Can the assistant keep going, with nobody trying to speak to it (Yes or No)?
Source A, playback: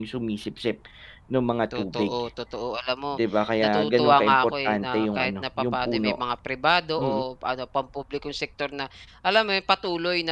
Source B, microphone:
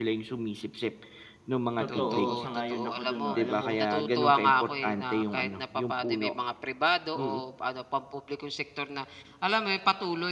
No